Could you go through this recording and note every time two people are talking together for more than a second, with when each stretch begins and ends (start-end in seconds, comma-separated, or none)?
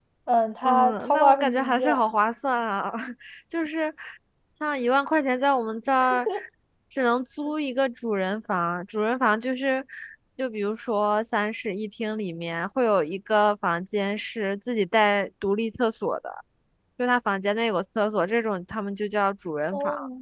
0.7-2.0